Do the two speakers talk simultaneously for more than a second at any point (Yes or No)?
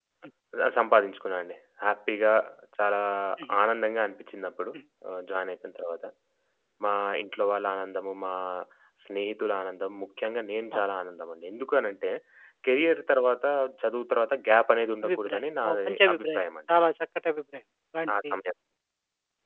Yes